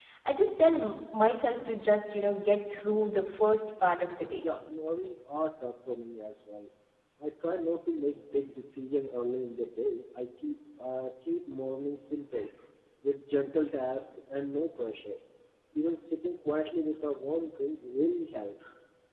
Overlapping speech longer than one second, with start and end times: none

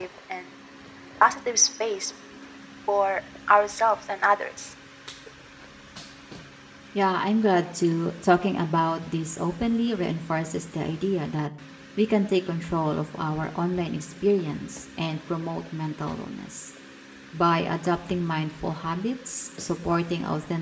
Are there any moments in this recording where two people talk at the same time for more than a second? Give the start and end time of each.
none

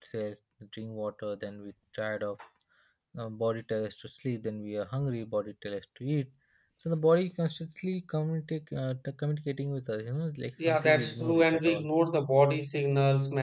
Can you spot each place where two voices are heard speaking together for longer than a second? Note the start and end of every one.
10.7-11.9

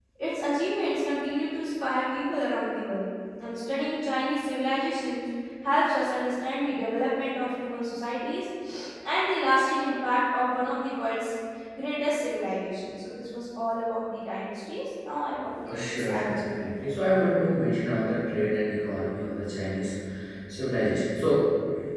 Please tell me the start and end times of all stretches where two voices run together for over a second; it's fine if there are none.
15.7-16.9

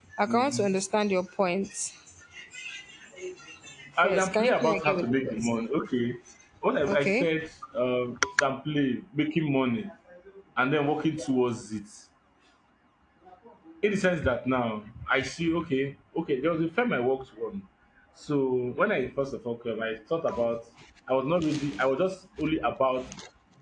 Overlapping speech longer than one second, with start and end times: 4.0-5.5

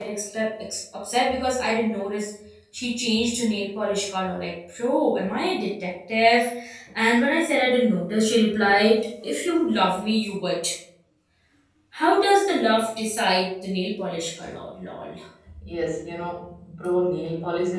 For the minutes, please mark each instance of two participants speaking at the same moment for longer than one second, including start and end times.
none

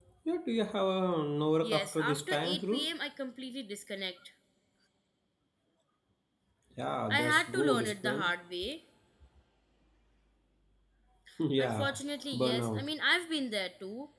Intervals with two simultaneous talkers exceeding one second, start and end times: 1.6-2.9, 7.1-8.3

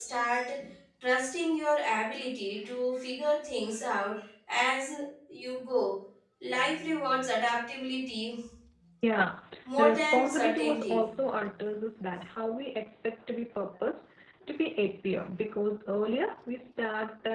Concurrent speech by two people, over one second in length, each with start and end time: 9.8-11.0

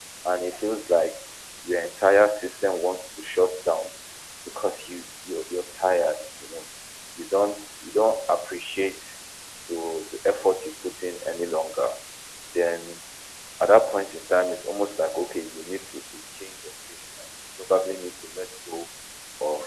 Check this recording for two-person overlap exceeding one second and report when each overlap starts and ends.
none

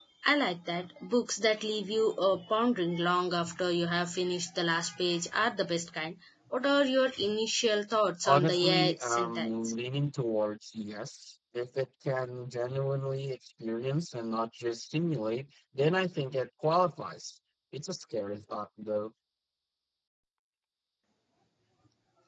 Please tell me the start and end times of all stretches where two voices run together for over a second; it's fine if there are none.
8.2-9.5

